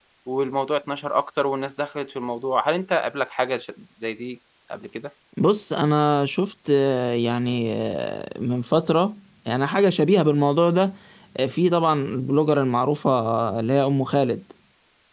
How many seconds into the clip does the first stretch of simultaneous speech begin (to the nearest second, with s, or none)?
none